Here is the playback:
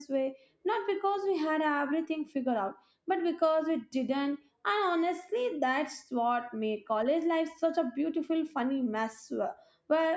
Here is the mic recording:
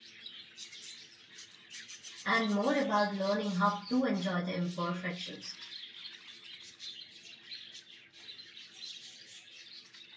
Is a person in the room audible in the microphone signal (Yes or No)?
Yes